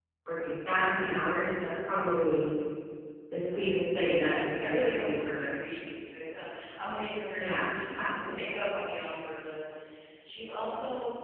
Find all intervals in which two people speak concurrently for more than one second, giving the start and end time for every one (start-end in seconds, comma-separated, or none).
3.5-5.6